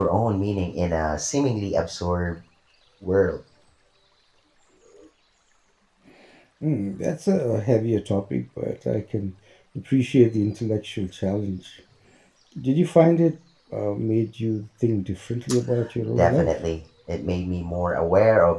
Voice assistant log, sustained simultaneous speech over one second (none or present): none